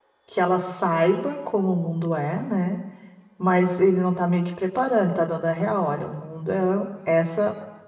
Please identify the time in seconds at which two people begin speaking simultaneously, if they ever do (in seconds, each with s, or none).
none